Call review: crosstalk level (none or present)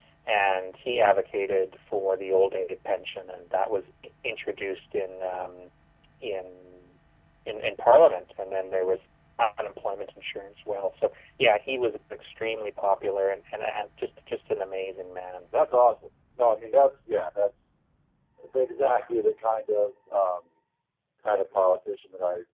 none